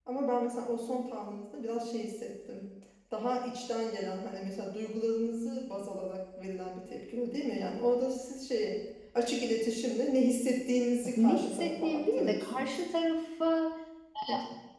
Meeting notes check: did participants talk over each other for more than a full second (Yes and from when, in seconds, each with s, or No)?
Yes, from 11.0 s